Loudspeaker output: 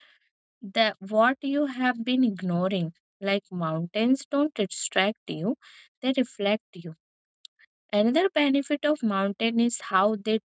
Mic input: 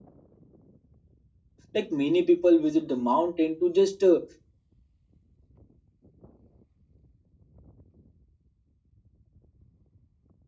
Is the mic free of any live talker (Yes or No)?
No